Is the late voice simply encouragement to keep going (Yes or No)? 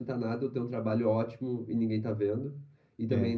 Yes